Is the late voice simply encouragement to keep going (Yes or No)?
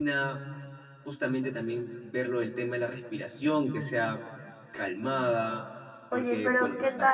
No